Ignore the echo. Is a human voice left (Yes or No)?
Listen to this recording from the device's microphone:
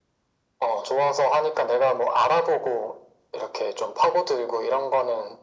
No